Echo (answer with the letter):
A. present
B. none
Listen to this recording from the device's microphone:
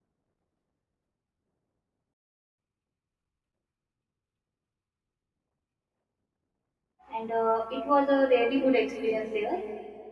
B